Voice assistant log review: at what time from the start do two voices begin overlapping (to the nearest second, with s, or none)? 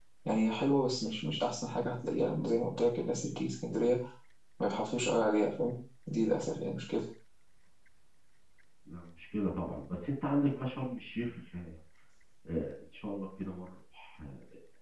none